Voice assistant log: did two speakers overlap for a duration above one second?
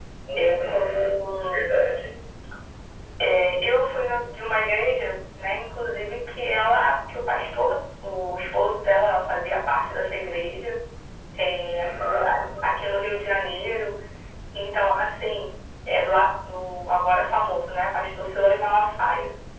Yes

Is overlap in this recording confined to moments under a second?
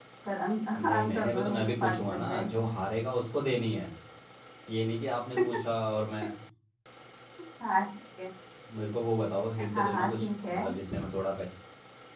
No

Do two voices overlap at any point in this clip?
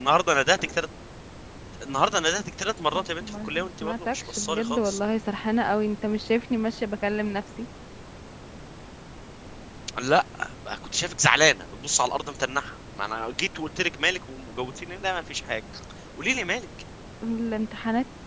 Yes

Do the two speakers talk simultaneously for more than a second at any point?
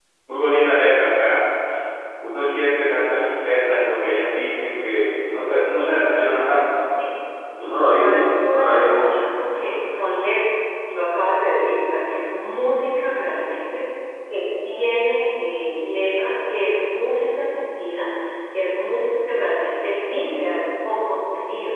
Yes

